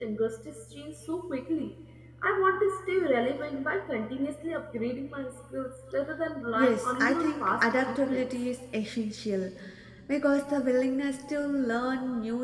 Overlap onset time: 6.5 s

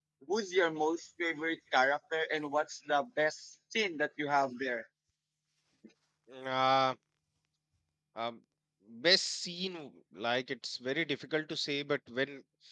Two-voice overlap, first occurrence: none

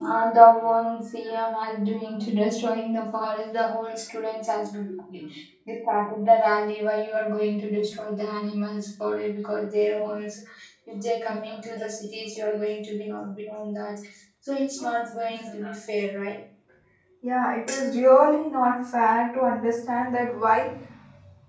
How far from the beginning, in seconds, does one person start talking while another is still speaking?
none

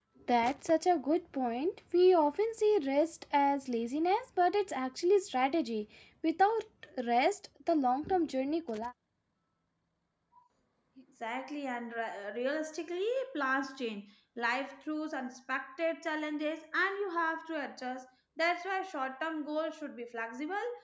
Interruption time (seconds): none

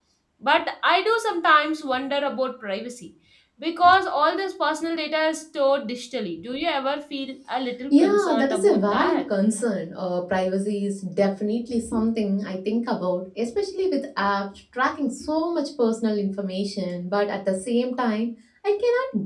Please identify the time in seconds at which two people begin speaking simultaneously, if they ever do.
7.9 s

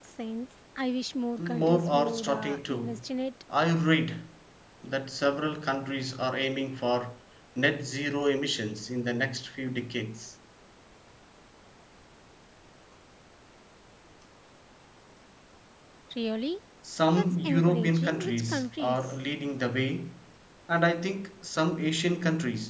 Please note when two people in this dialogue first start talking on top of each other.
1.4 s

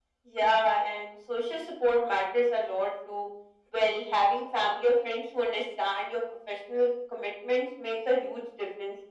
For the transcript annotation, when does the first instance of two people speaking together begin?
none

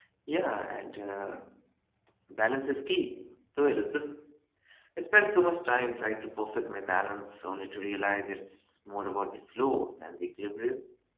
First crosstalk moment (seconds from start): none

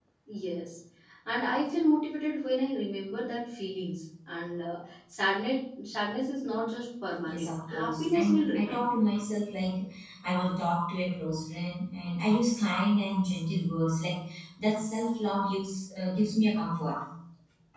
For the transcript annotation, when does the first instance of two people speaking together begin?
7.2 s

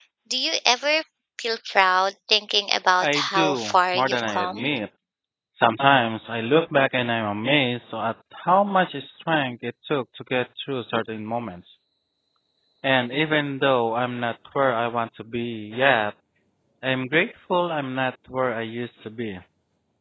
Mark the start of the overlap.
3.0 s

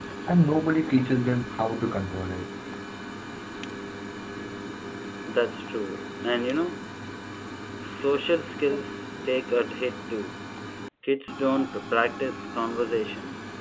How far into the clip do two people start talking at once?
none

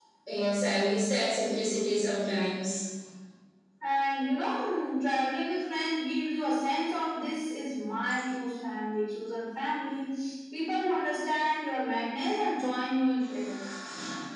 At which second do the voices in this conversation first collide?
none

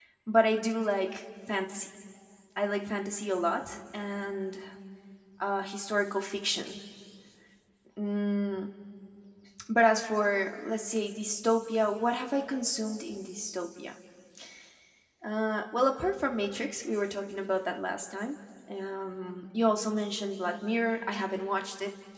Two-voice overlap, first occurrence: none

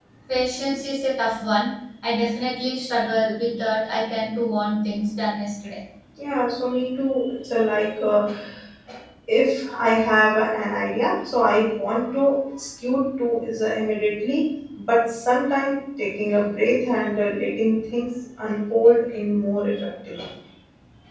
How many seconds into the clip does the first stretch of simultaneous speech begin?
none

